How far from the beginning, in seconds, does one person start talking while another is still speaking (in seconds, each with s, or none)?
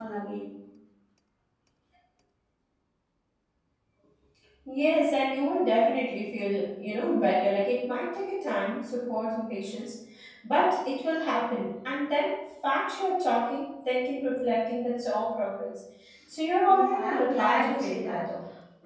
16.7 s